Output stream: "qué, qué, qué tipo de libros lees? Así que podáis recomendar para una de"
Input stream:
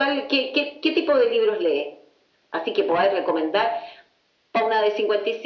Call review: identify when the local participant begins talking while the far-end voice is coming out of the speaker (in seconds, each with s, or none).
none